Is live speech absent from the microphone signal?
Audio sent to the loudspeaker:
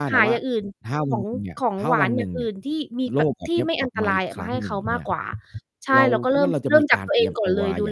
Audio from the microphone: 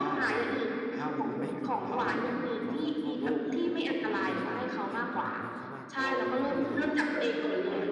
No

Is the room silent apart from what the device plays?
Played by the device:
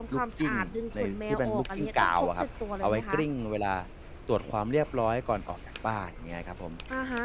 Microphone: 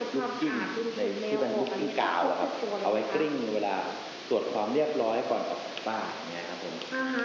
Yes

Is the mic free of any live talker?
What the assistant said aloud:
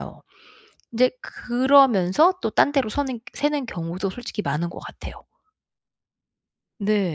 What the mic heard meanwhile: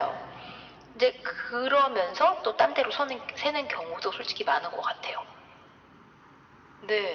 Yes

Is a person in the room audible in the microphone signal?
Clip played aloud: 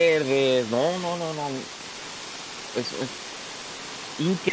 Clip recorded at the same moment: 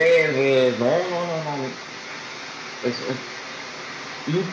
No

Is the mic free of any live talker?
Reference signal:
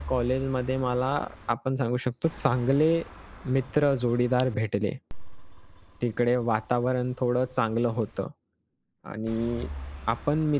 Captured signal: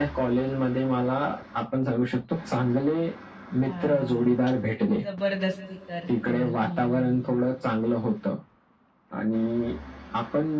No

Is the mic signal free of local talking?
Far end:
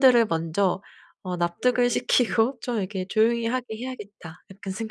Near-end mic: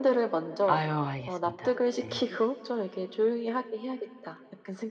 No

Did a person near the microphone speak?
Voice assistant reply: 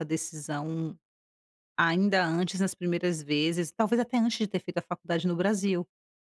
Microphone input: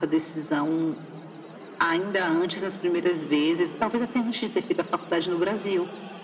No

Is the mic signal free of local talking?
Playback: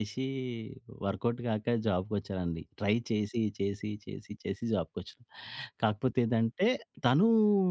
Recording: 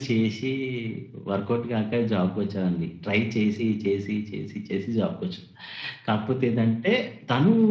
Yes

